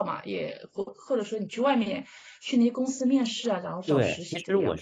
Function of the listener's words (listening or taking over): taking over